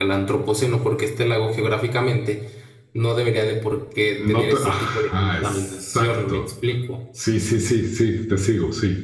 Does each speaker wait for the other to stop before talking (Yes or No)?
No